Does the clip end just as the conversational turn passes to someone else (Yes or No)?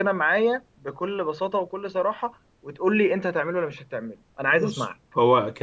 Yes